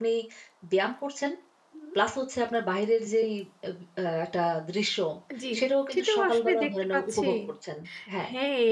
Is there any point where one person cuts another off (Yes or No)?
Yes